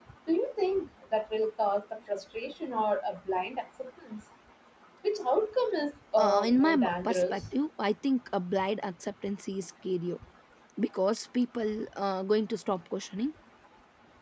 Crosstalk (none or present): present